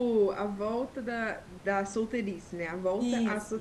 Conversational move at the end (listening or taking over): taking over